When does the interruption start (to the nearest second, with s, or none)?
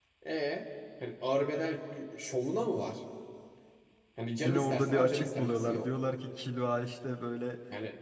4 s